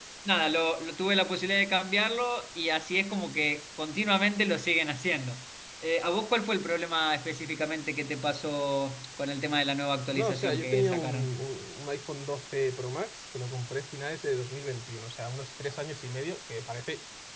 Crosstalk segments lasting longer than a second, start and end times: 10.1-11.4

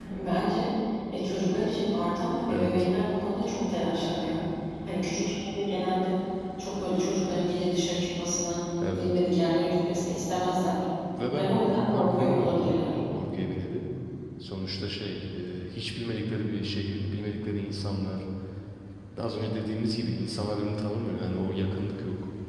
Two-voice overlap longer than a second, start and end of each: 11.4-13.0

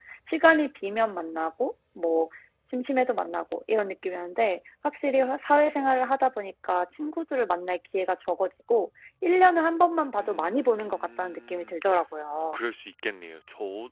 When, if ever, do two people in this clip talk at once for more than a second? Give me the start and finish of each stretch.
10.2-11.7

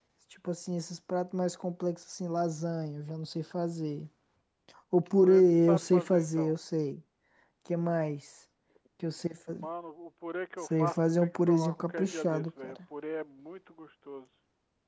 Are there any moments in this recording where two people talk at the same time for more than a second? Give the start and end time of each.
5.2-6.5, 10.6-12.8

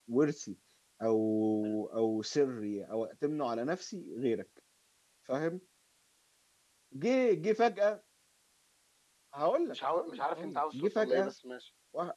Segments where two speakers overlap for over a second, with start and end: 9.7-11.3

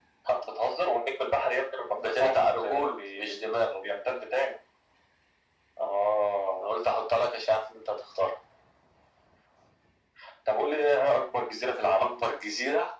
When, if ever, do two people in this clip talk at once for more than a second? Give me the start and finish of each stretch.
2.0-3.3

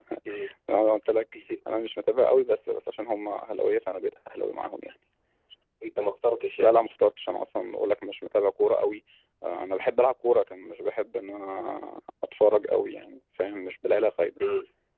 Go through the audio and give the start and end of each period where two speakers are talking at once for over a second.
none

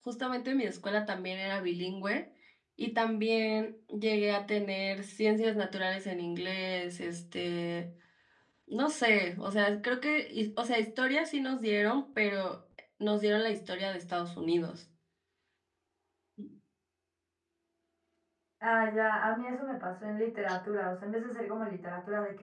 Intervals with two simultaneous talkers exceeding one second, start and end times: none

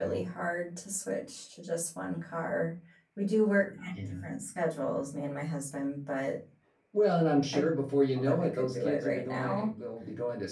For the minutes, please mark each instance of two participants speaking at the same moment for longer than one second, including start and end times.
8.2-9.7

